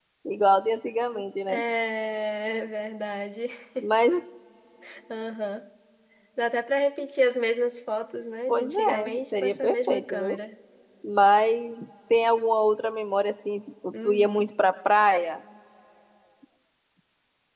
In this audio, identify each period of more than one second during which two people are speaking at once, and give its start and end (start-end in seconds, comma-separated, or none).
8.5-10.4